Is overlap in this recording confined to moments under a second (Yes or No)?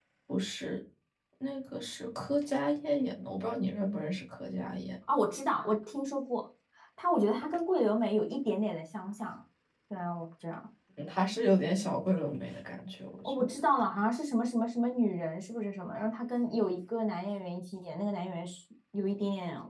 Yes